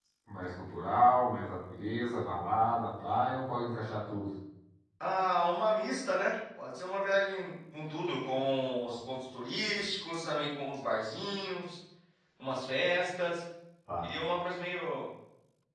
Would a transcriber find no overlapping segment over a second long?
Yes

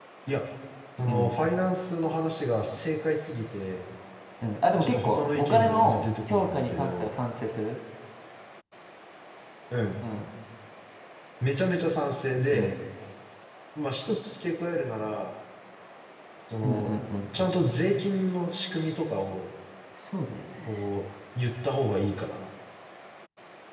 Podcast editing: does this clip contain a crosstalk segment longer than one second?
Yes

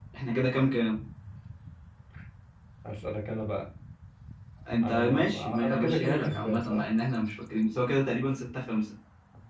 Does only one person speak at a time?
No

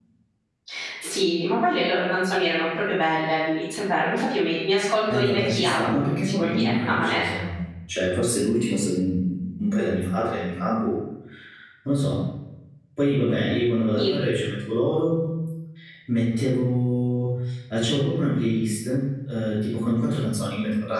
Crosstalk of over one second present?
Yes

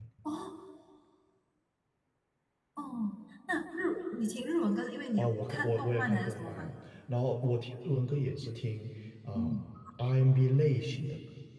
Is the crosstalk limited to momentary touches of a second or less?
No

